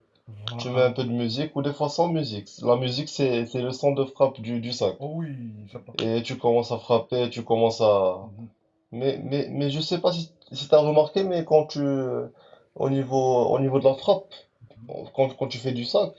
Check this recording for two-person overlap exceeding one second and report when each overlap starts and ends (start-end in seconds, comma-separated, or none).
none